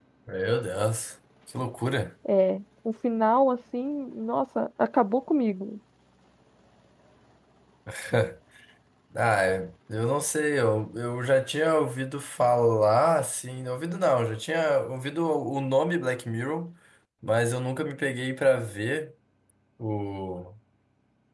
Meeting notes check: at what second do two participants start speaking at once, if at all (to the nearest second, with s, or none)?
none